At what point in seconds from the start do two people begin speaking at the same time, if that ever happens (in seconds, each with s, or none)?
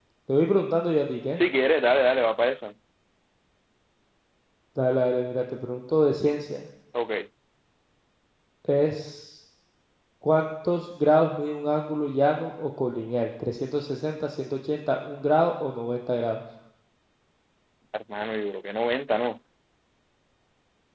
none